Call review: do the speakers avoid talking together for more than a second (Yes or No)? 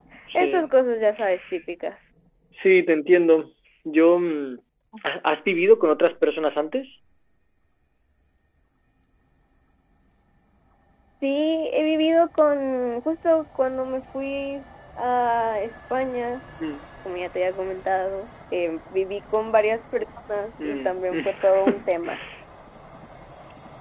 No